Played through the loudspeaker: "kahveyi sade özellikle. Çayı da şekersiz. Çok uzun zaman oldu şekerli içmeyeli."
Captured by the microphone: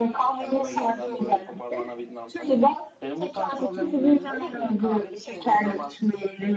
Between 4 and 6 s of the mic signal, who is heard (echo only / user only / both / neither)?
both